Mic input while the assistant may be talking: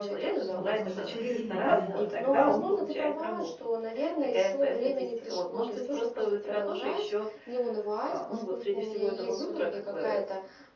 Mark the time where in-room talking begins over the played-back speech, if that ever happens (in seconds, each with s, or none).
0.5 s